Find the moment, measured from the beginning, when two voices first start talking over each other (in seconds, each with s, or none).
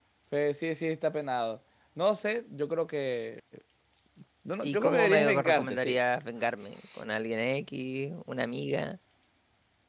4.6 s